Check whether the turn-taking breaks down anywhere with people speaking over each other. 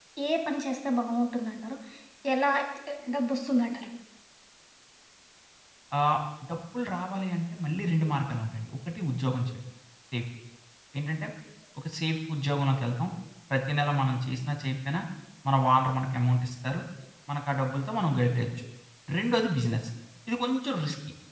No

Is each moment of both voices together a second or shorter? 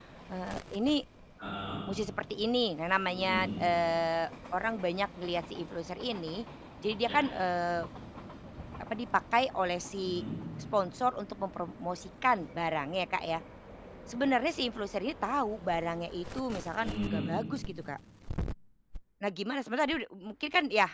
Yes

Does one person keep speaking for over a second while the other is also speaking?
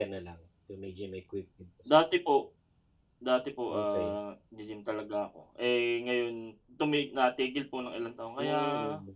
No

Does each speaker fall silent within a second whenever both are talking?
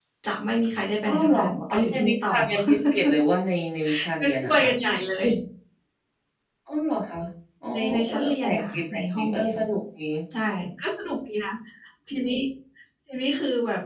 No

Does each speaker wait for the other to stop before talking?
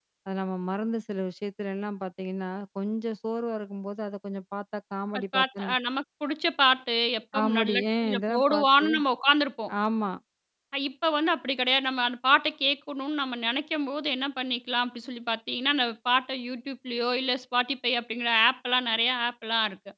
No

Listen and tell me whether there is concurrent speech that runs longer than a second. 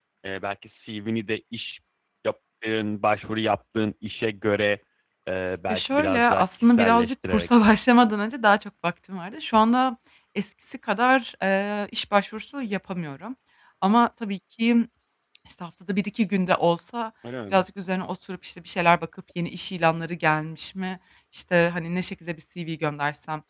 Yes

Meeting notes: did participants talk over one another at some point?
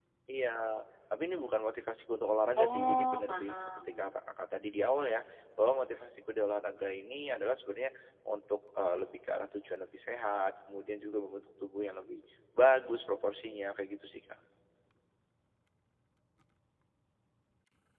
Yes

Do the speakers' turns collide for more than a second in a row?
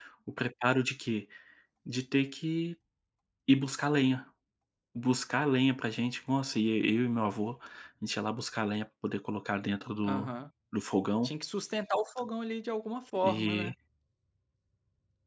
No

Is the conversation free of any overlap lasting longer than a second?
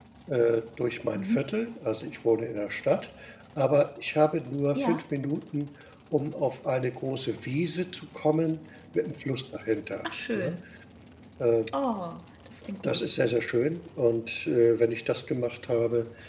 Yes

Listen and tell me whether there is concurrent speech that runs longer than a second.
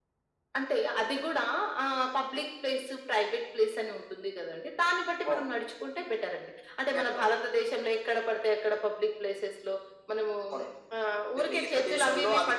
Yes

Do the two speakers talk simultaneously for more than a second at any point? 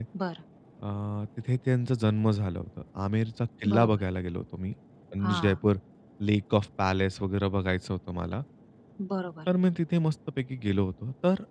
No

